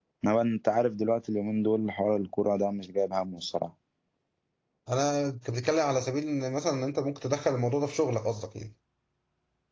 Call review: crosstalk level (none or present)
none